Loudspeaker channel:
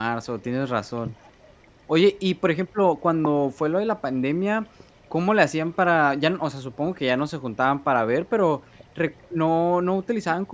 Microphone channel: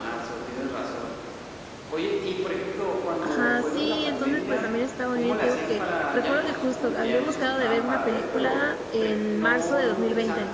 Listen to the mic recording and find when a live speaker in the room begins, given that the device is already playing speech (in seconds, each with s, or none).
3.2 s